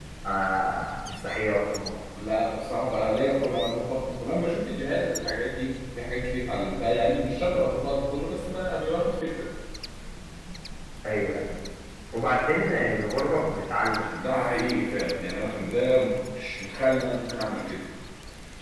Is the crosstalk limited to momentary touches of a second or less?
Yes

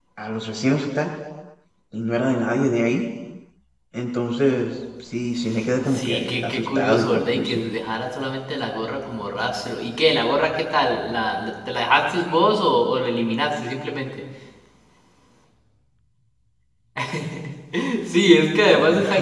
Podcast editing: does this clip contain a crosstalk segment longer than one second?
Yes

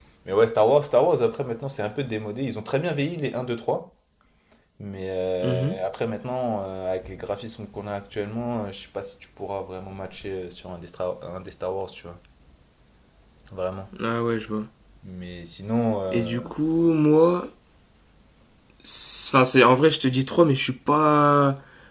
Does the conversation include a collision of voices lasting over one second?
No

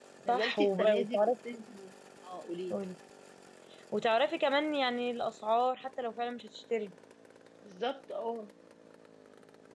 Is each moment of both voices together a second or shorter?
No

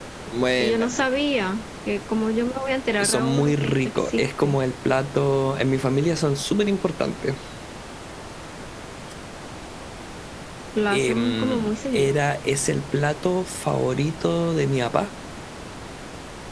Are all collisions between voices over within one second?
No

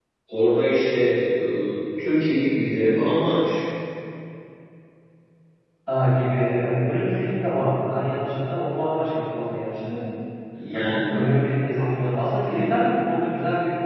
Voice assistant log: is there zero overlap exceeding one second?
Yes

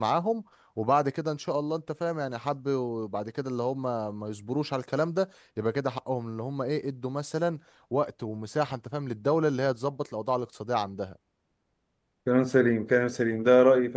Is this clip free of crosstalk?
Yes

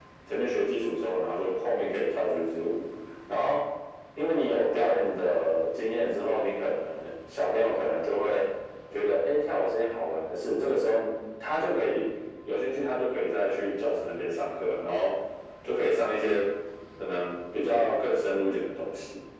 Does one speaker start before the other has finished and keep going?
No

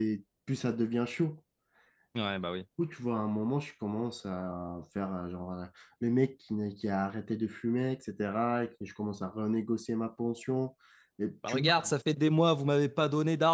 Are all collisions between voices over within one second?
Yes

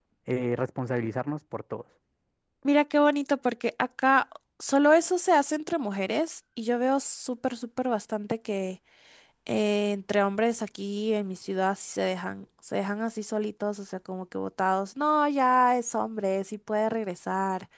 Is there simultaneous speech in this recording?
No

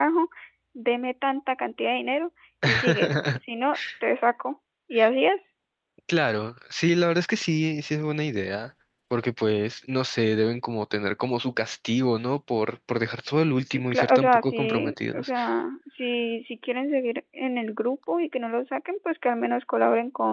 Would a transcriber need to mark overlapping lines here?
Yes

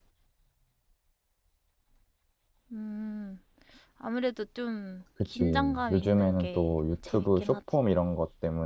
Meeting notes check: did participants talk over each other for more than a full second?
Yes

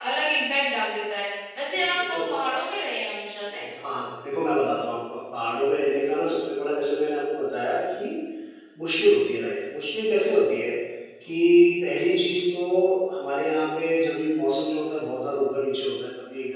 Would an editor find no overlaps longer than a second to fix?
Yes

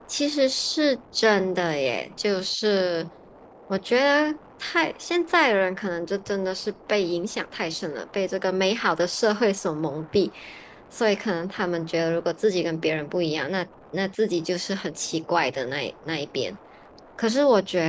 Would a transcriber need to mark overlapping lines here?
No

